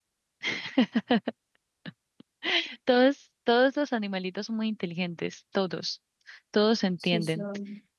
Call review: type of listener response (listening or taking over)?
listening